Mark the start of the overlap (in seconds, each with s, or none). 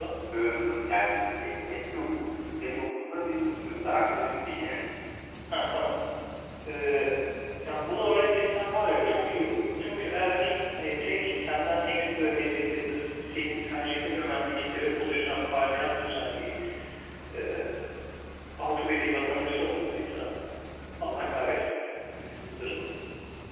none